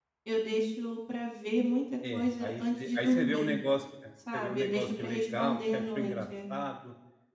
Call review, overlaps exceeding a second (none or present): present